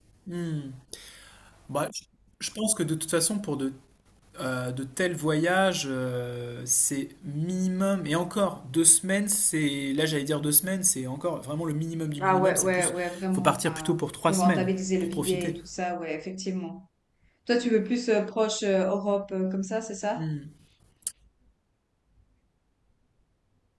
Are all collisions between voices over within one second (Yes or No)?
No